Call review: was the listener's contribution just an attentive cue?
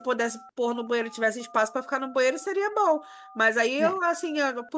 Yes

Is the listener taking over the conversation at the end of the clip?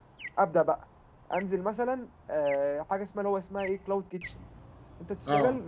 No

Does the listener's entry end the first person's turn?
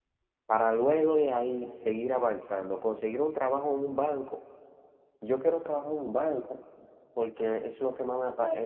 Yes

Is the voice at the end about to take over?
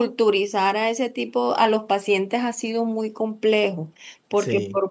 No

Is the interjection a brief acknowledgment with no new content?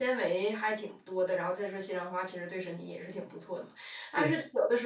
Yes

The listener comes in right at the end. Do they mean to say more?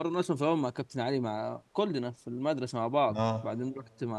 No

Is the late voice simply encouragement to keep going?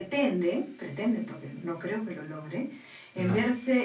Yes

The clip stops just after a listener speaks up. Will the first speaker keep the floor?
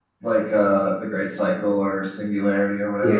No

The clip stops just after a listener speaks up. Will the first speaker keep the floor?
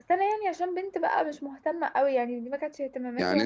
No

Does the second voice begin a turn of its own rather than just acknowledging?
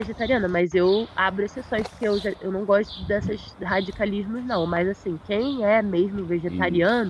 No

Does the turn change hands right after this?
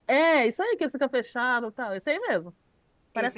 Yes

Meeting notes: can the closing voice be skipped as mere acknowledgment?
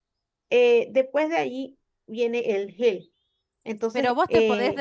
No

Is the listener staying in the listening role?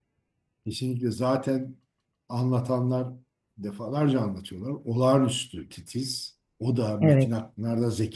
Yes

